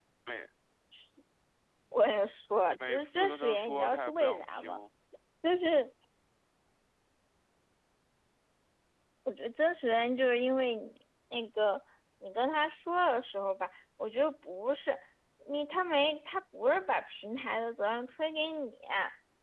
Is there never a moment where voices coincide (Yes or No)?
No